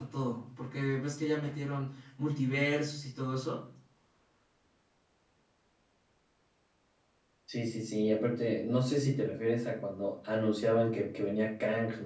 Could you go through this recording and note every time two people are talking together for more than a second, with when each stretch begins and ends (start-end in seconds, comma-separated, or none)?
none